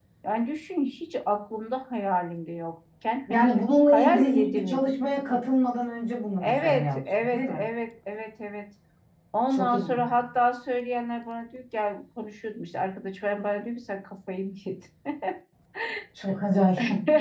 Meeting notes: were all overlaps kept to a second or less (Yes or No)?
No